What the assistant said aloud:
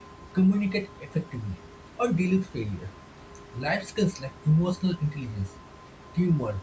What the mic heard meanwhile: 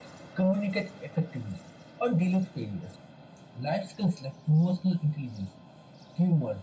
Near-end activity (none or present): none